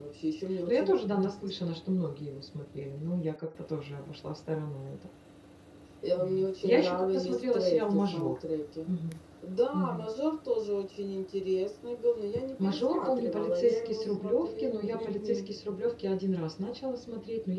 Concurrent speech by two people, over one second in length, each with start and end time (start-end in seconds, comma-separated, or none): 6.2-8.3, 12.6-15.5